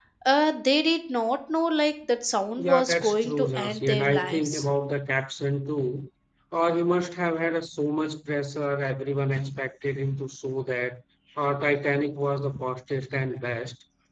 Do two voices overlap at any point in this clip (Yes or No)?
Yes